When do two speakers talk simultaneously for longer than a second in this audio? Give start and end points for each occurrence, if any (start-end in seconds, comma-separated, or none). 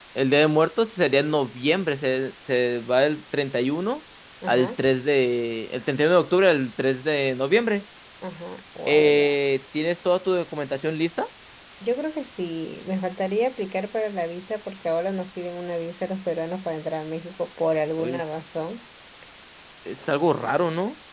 none